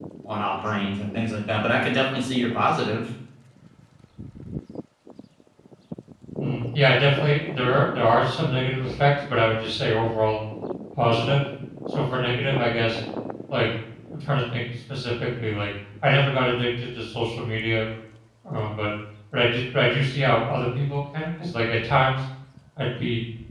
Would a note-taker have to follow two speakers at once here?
No

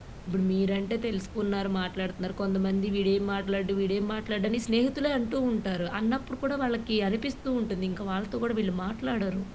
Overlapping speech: No

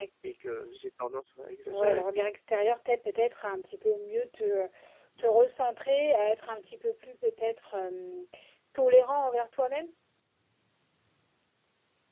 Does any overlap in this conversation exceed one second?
No

